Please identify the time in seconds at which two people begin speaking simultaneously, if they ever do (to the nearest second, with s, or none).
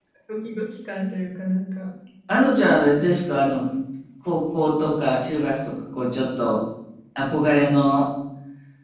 none